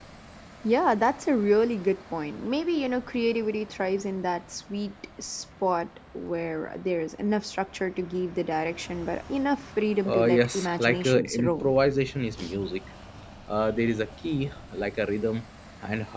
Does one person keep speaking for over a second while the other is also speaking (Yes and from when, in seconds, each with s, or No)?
Yes, from 10.0 s